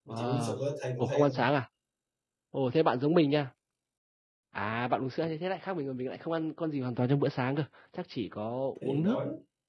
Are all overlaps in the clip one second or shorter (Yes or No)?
Yes